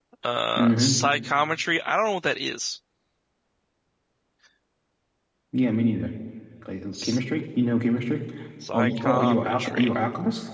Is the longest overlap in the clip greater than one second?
Yes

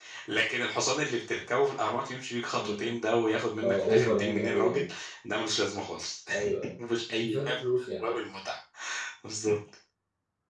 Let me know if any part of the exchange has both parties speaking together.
Yes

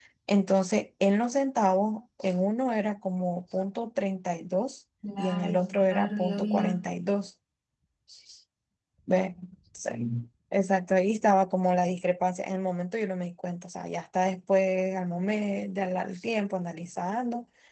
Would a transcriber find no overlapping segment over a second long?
No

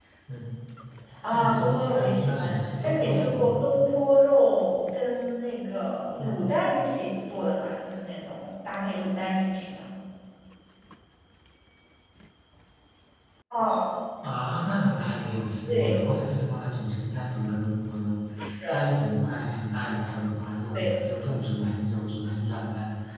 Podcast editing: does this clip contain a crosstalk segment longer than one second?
Yes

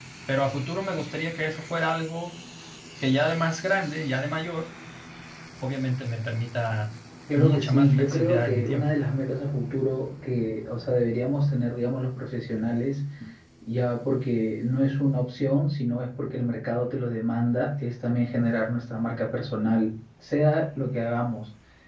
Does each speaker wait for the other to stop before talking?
No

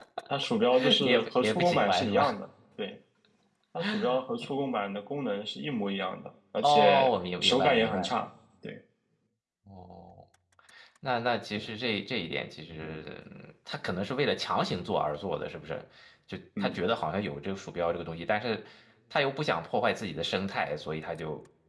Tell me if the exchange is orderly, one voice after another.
No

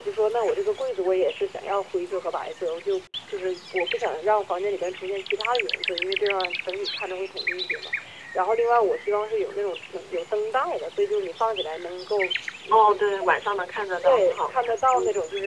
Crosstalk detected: Yes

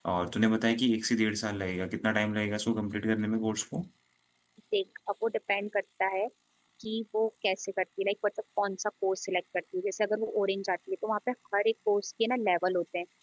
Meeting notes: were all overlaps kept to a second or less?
Yes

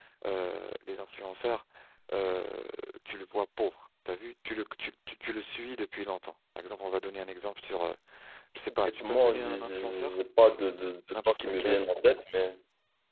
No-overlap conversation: No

